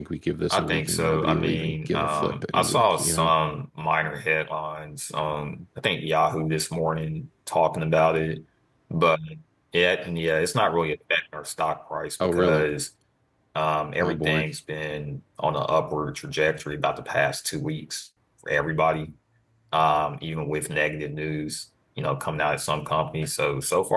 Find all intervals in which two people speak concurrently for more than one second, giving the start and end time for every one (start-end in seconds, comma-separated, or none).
0.5-3.3